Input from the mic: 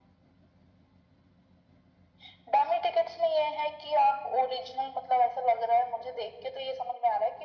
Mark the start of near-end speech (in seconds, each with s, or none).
none